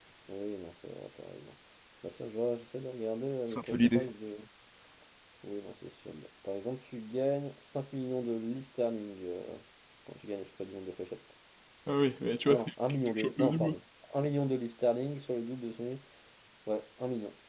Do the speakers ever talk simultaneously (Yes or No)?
Yes